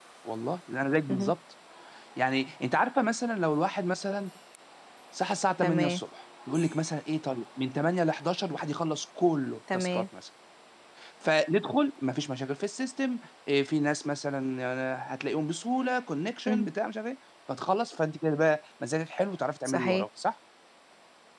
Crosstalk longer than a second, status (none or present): none